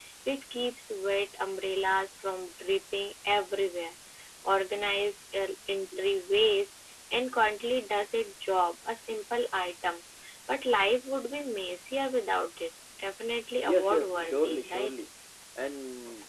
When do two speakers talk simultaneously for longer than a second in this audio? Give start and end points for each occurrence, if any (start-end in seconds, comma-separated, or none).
13.6-14.9